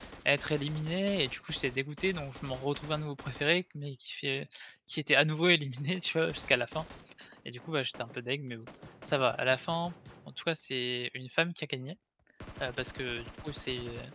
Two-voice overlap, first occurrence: none

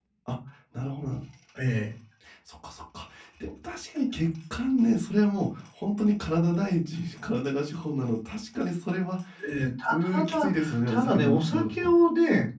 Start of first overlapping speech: 9.9 s

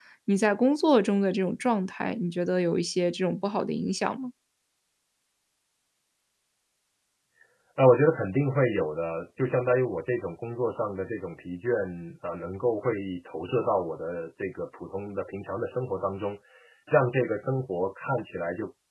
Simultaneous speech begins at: none

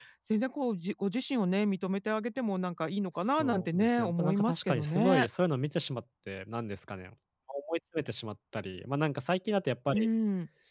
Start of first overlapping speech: 3.2 s

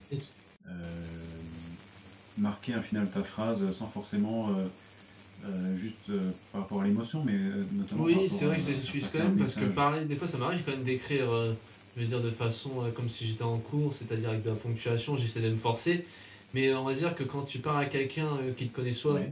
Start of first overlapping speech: 7.9 s

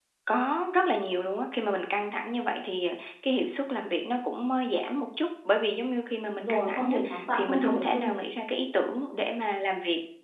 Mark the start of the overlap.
6.3 s

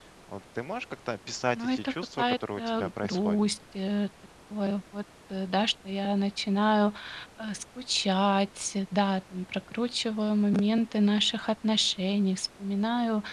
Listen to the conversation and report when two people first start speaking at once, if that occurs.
1.5 s

